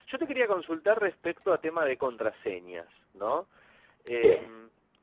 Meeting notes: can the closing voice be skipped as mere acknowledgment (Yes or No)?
Yes